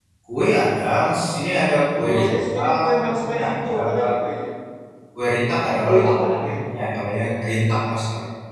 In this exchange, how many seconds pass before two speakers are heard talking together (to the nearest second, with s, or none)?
2 s